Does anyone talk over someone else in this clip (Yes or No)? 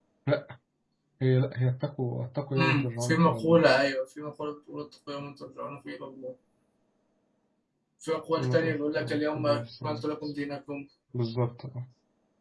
Yes